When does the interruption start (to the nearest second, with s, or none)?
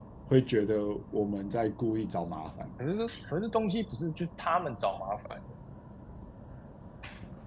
none